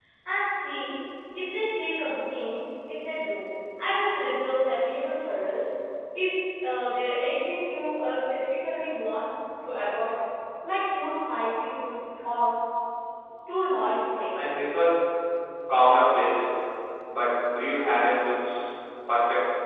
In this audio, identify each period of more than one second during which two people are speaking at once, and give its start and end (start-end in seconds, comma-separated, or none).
none